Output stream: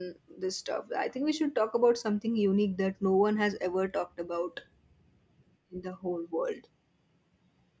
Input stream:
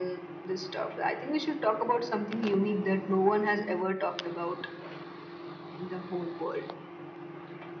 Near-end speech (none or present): none